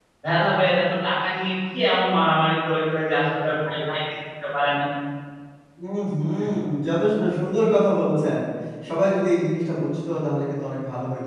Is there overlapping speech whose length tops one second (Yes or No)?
No